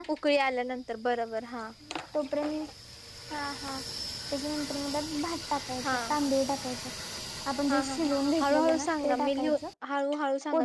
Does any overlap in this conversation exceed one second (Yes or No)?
Yes